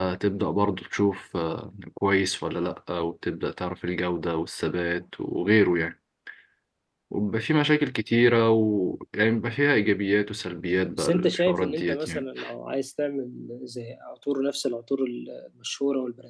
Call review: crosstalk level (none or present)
present